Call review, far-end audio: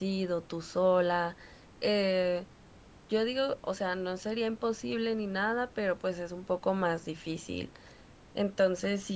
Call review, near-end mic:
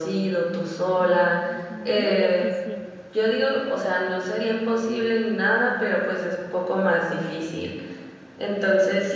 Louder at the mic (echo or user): echo